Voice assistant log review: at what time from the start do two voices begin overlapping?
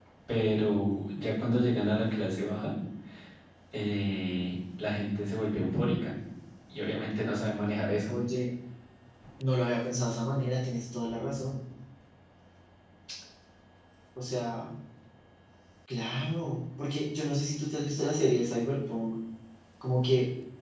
none

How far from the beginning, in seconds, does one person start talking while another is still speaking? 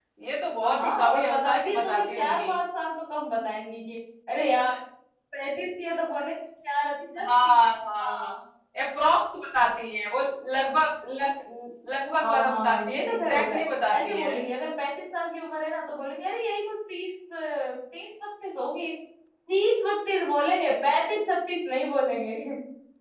0.6 s

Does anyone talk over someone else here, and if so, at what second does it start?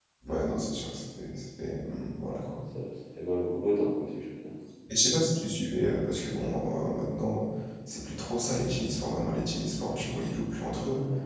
none

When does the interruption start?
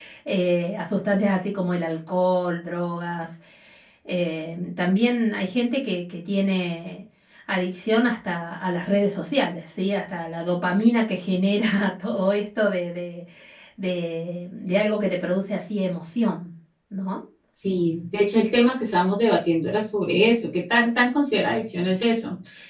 none

